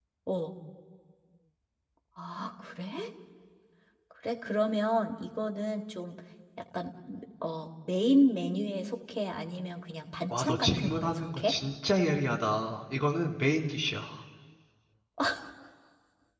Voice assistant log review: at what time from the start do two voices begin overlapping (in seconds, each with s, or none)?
10.3 s